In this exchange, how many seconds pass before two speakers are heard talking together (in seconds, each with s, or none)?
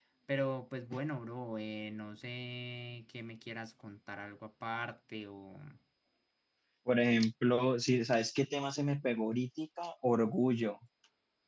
none